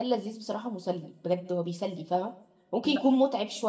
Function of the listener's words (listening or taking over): listening